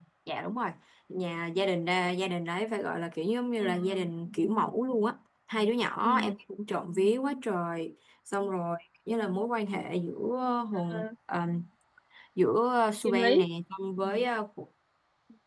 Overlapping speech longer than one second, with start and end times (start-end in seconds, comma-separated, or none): none